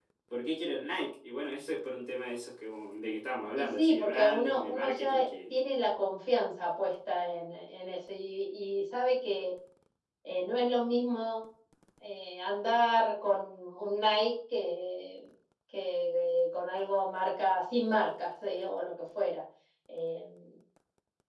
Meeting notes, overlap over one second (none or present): present